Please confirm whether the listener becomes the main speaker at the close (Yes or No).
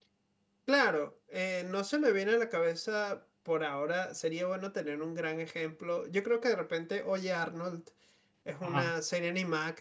No